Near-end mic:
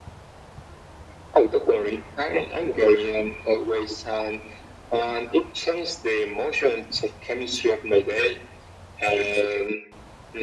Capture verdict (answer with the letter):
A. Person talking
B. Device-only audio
B